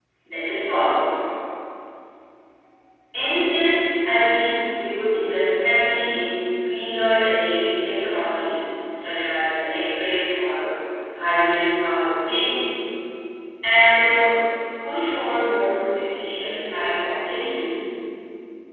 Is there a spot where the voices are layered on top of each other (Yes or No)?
No